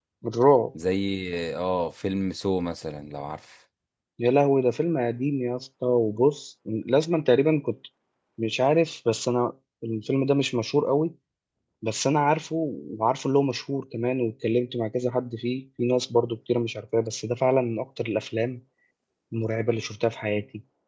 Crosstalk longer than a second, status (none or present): none